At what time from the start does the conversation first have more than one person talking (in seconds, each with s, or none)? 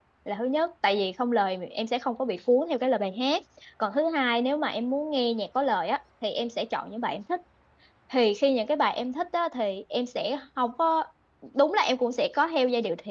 none